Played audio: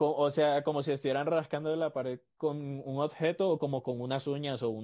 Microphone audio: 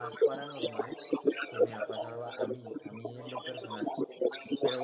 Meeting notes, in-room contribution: present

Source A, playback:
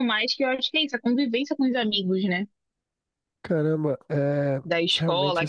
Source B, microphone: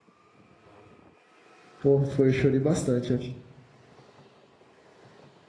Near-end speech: present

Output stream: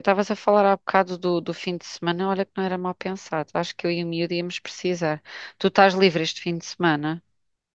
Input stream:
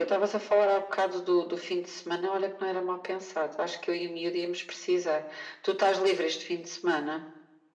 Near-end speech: none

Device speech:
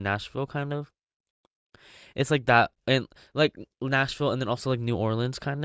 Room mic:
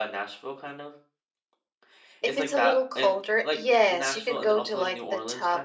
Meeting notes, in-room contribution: present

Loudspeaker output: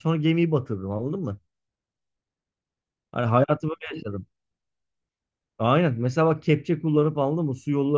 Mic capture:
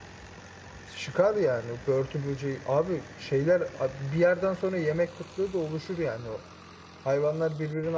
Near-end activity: present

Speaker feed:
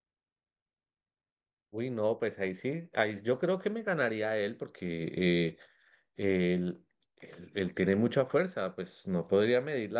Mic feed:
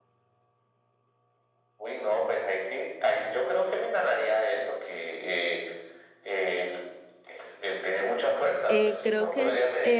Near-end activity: present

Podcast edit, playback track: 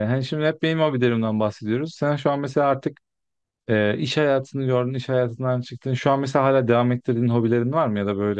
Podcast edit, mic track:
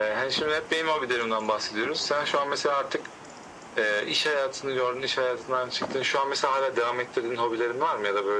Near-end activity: none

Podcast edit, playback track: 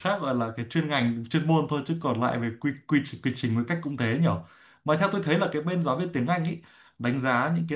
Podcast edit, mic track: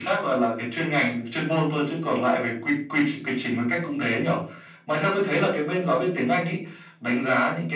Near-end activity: none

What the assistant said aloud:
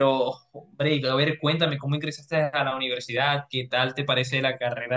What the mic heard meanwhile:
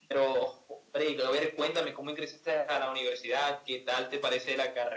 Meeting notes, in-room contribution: none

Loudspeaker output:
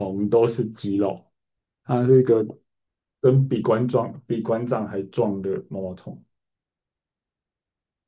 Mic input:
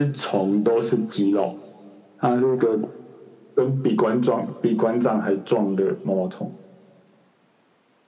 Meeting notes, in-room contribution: none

